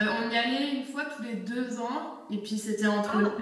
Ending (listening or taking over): listening